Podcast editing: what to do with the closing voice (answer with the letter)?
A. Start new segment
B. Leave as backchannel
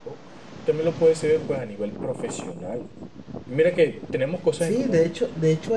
A